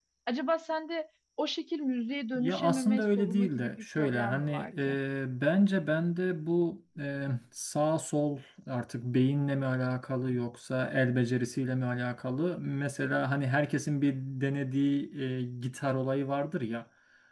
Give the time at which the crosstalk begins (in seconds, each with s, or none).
2.4 s